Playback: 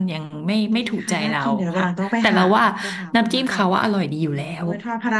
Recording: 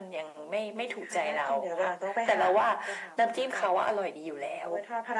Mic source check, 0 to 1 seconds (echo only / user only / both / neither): echo only